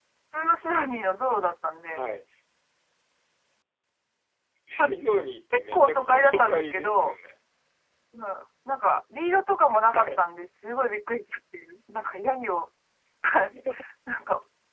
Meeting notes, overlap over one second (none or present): present